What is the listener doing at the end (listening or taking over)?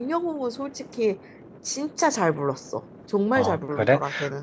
taking over